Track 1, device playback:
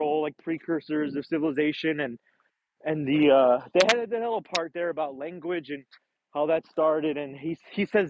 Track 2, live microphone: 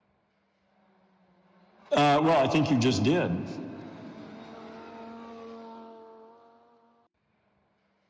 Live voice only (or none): Uh, well, I think you just did.